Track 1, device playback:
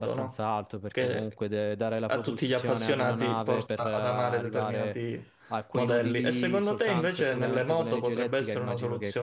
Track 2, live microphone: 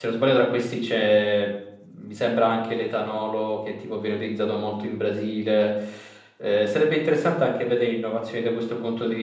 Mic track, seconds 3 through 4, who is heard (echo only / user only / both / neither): user only